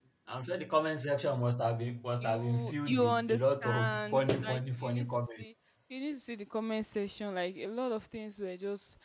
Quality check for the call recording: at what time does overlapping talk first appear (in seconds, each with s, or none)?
2.2 s